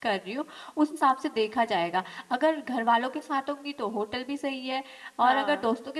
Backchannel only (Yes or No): Yes